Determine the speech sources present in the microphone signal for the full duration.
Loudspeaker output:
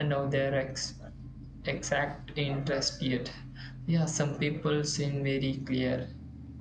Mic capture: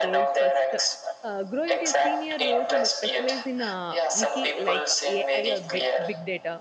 both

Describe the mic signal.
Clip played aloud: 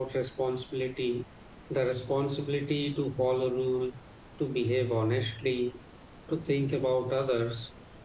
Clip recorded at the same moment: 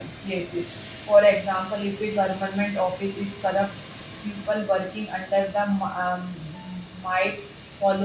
user only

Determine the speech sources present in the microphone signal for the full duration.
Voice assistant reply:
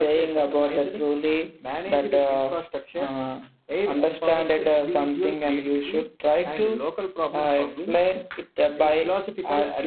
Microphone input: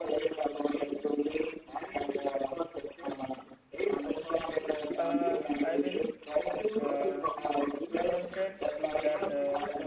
both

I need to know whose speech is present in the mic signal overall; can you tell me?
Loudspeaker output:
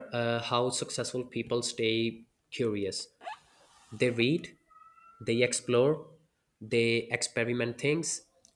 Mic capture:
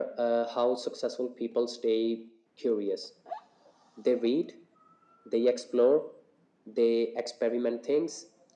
echo only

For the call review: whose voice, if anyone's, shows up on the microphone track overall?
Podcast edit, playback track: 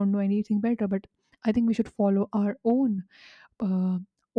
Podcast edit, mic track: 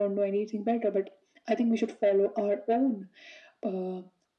echo only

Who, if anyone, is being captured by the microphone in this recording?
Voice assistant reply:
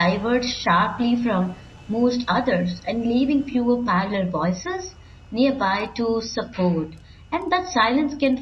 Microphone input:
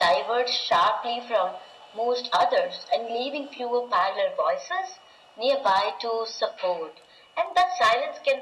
echo only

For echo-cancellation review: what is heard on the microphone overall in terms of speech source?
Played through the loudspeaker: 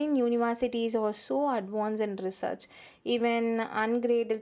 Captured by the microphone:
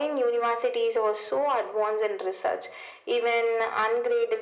echo only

